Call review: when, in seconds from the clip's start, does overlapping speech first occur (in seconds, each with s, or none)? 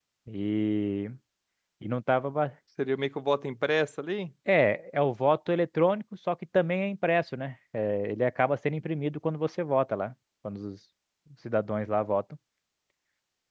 none